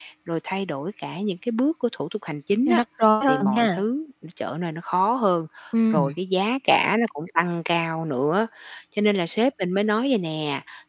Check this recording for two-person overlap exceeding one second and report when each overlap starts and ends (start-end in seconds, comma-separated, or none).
none